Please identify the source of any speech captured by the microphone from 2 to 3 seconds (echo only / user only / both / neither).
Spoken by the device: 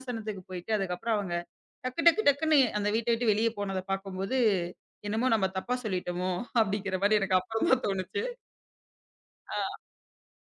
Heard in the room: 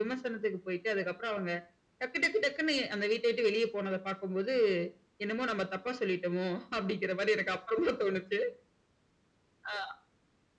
echo only